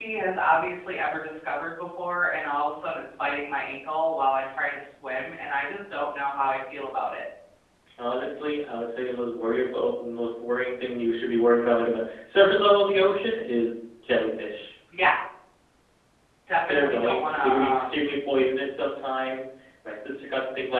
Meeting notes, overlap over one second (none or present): present